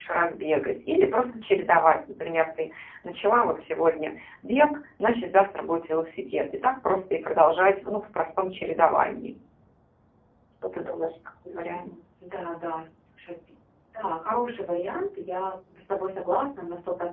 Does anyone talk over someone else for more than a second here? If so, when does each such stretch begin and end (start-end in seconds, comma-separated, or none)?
none